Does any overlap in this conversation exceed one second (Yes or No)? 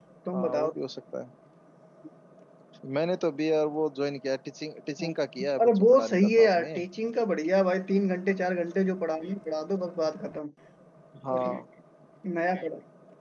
Yes